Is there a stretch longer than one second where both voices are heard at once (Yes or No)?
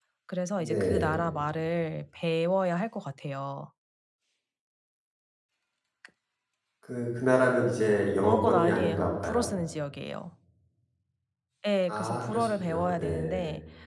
Yes